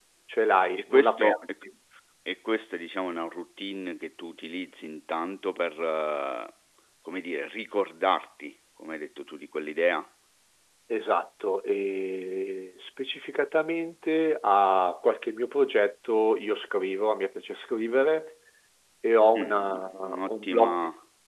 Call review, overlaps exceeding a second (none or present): present